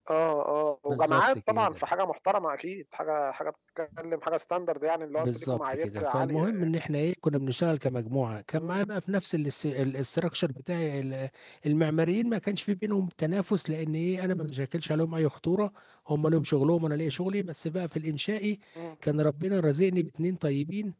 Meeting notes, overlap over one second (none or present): present